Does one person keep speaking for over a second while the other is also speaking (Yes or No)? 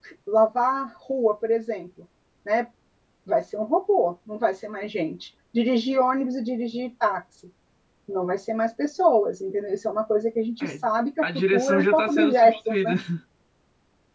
Yes